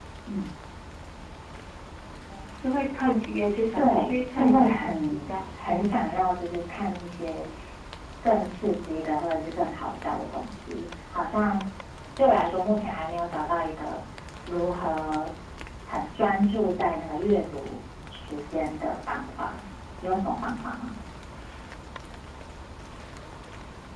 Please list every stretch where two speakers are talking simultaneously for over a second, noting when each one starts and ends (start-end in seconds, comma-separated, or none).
3.8-5.4